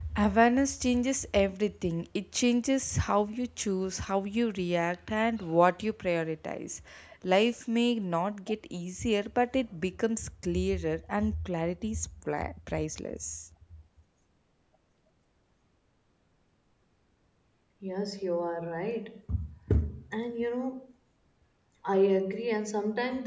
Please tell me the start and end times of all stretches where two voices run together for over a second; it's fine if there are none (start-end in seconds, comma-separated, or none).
none